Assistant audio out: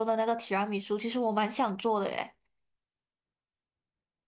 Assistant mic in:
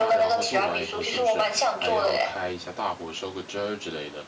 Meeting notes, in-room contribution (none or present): present